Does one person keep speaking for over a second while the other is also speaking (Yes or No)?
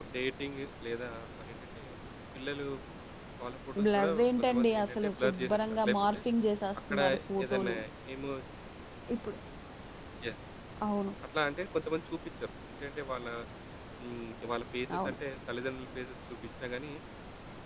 Yes